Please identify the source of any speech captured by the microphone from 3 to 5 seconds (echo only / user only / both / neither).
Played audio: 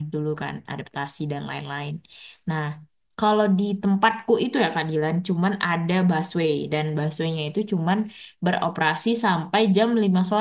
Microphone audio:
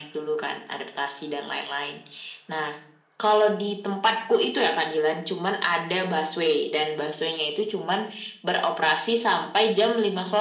echo only